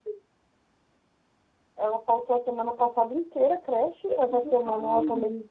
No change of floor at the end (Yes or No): Yes